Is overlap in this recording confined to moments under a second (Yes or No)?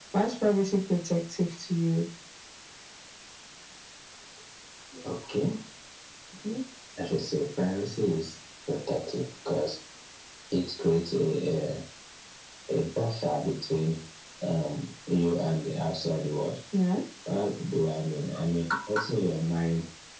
Yes